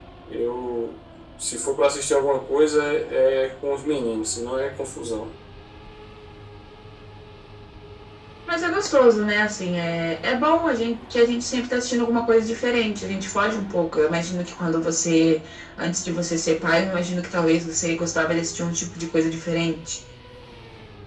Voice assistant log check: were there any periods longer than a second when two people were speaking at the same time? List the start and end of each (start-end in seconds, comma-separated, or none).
none